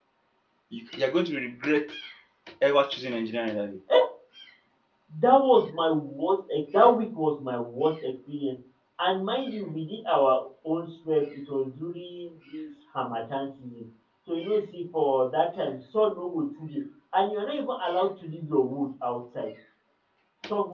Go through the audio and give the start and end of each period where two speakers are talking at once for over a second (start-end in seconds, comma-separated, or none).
none